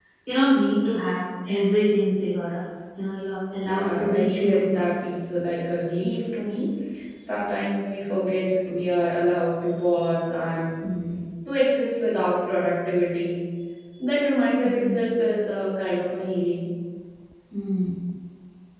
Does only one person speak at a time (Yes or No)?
No